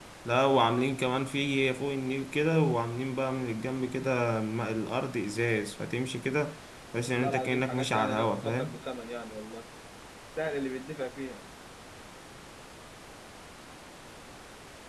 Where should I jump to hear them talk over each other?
7.1 s

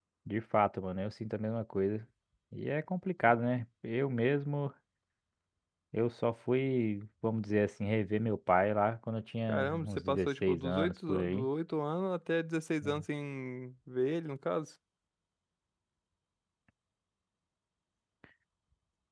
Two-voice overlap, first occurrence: 9.5 s

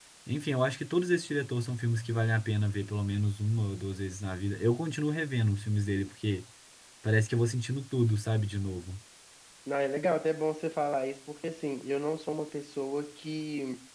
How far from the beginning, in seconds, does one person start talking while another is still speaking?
none

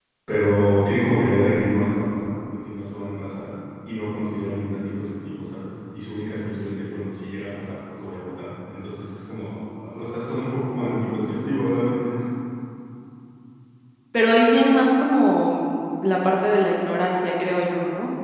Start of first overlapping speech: none

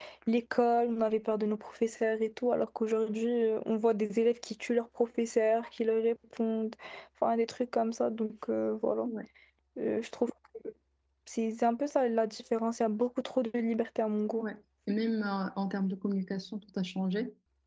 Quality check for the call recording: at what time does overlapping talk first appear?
none

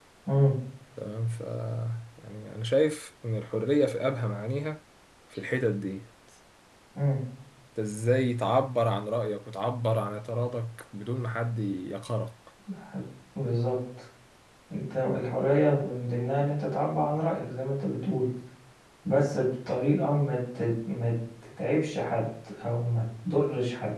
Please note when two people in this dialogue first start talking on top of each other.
none

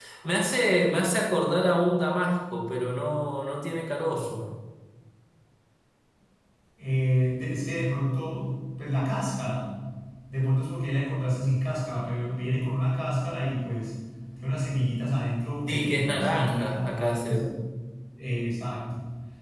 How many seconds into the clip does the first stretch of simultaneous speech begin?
15.7 s

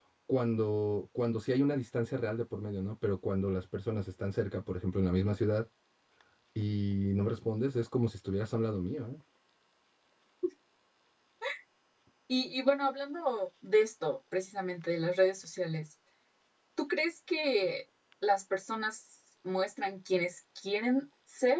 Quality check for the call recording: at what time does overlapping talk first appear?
none

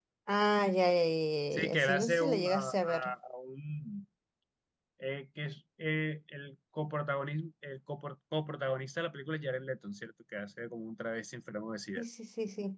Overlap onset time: 1.5 s

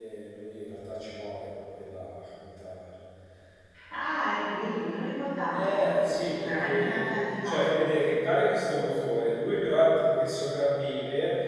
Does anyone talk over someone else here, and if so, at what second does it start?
5.5 s

